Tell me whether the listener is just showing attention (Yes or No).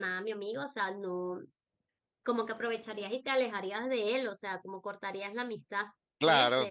No